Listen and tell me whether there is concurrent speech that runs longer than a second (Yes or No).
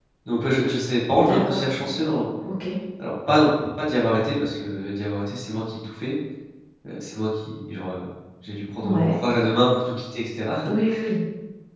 No